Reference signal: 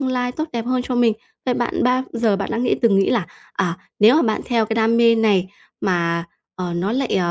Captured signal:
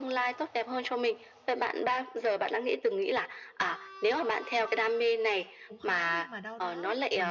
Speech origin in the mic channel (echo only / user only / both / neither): both